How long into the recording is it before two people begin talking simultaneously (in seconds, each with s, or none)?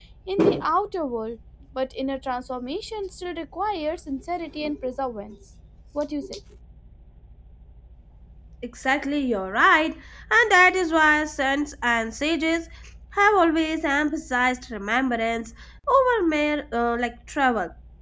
none